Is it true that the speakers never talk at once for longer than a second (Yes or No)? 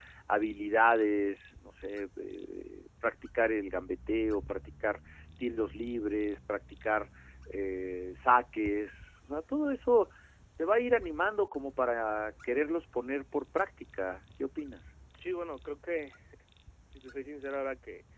Yes